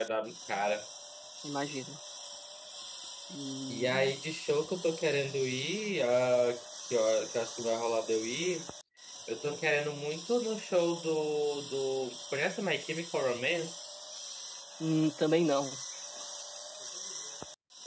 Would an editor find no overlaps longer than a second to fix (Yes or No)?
Yes